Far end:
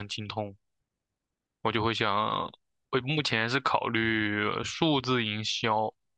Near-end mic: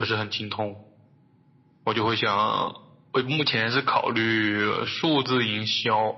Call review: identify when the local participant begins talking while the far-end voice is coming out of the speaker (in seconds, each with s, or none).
none